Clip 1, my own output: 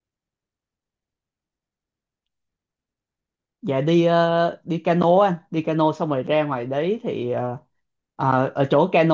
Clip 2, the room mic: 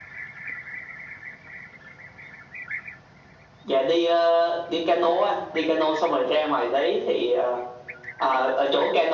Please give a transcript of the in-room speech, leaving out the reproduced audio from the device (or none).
none